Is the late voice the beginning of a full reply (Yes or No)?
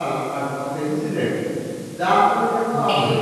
No